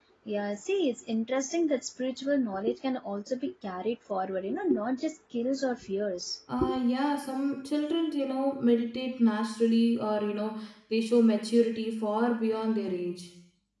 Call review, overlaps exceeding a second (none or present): none